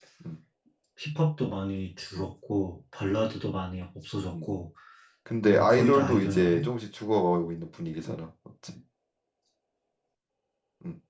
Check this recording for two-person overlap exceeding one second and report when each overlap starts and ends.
5.4-6.7

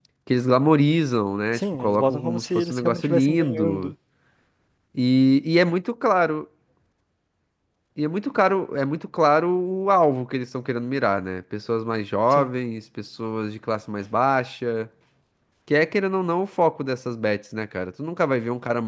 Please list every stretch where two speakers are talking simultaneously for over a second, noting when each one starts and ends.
1.6-3.9

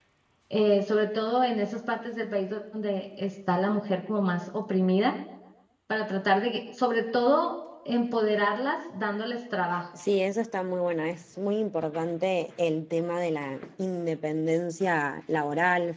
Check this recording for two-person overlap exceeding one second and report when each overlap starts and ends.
none

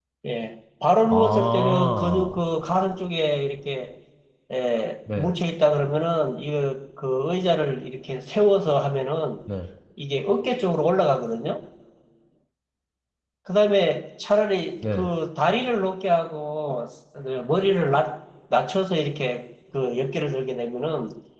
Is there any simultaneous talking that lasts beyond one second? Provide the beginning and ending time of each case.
1.0-2.3

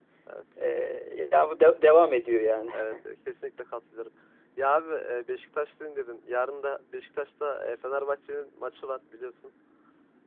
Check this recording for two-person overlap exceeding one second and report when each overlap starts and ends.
none

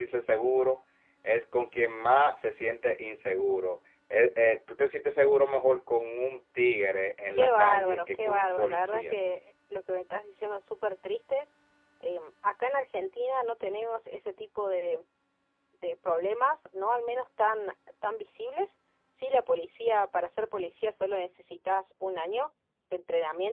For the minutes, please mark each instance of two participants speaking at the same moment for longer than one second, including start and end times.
7.4-9.2

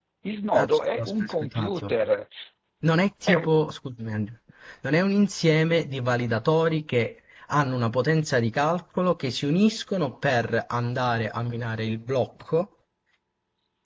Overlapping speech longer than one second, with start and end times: 0.6-1.9

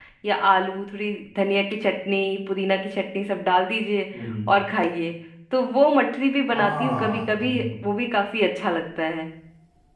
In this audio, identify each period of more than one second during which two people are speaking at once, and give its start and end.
6.5-7.8

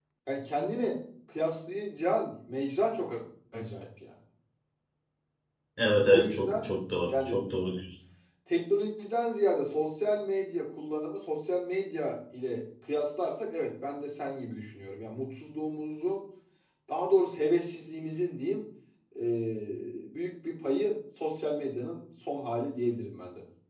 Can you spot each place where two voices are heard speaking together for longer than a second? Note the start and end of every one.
none

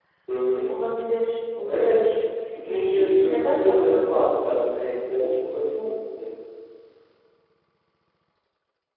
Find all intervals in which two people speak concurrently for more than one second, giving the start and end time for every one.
2.6-4.2

